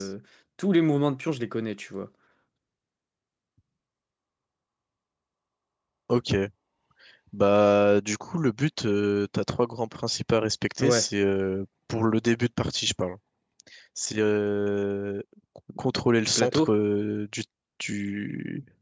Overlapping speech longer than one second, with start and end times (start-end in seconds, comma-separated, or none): none